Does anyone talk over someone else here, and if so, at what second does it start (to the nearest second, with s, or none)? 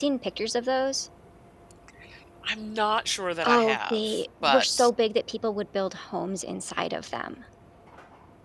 3 s